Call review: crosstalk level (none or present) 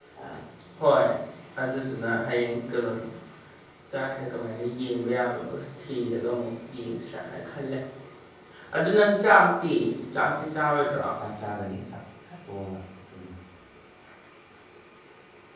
none